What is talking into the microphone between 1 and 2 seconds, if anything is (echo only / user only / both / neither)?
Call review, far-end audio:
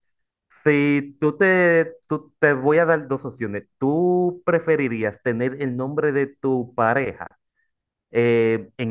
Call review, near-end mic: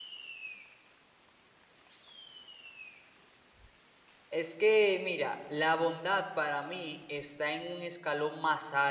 neither